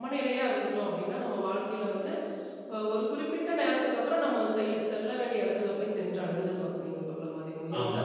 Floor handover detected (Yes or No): Yes